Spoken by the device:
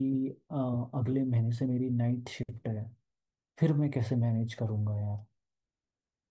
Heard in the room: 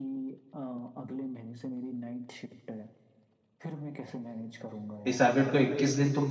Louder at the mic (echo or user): user